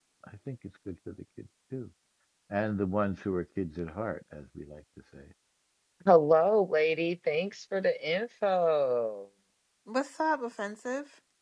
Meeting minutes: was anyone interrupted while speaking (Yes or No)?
No